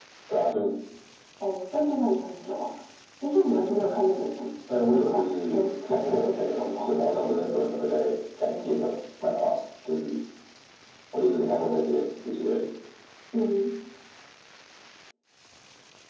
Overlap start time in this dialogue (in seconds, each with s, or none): 4.7 s